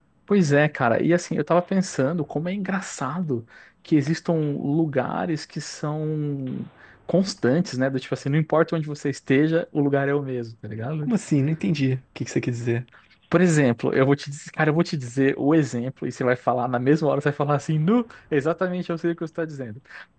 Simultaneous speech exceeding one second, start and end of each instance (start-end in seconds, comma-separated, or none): none